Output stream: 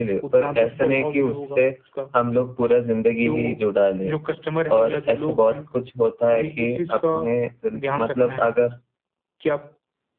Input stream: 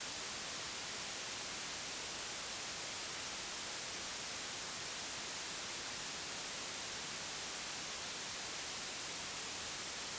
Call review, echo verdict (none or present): none